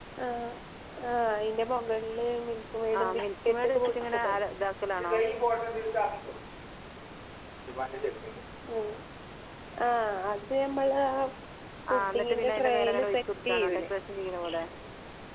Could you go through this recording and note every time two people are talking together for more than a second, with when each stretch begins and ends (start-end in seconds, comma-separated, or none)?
3.0-4.2, 11.9-13.8